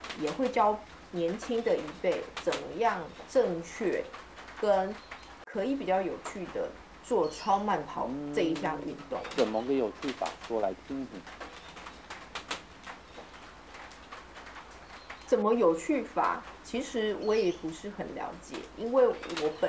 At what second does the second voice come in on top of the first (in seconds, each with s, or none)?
8.0 s